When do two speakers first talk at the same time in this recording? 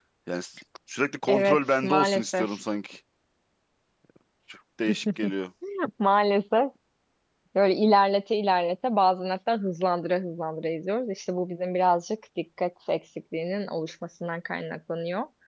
1 s

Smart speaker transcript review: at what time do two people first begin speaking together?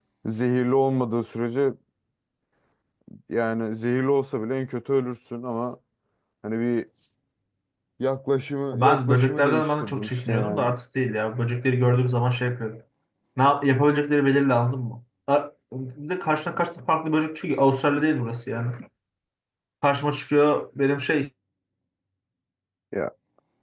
9 s

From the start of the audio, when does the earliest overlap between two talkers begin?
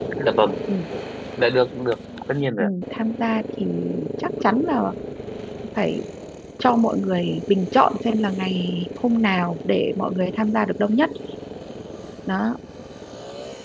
none

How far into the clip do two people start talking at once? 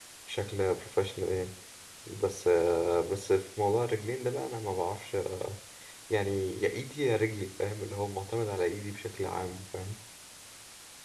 none

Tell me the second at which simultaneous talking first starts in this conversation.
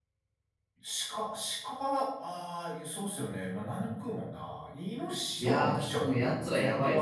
5 s

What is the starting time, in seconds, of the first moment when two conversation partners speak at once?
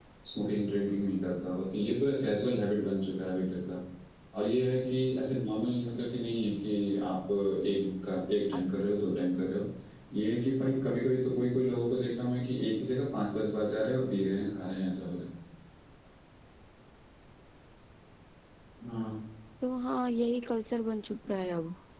none

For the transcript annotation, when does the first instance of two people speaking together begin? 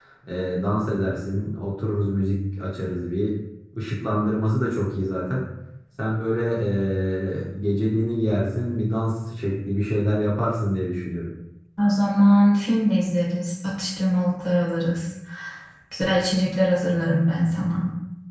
none

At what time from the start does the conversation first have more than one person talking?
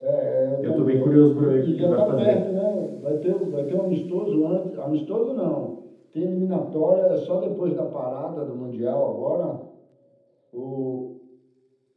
1 s

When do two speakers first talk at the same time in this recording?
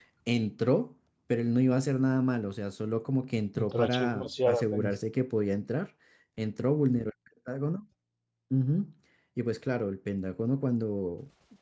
4 s

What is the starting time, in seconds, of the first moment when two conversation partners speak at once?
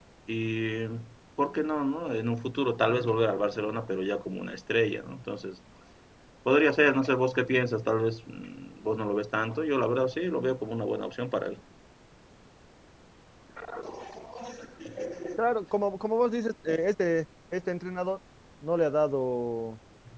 none

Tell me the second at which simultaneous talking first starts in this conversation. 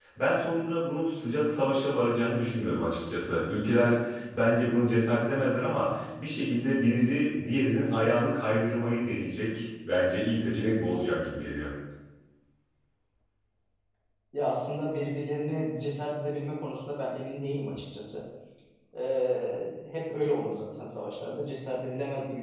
none

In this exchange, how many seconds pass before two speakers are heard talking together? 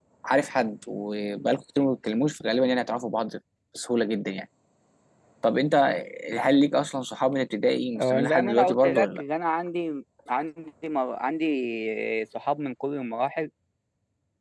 8 s

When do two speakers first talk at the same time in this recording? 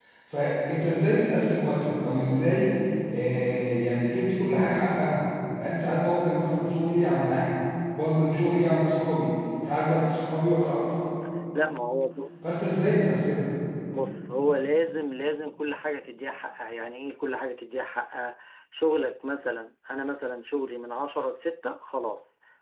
none

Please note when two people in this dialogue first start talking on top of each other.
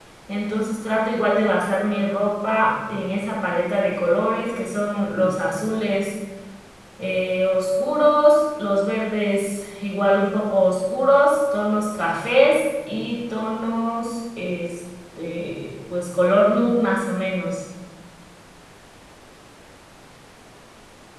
none

